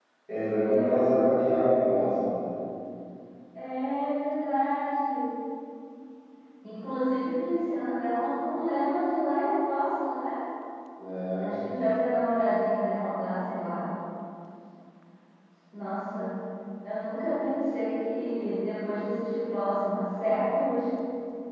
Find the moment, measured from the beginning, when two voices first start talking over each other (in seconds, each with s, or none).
0.6 s